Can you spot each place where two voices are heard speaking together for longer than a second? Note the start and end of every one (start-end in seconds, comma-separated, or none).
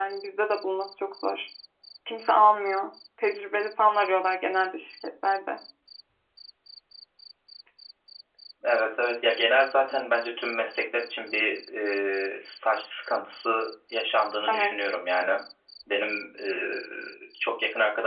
none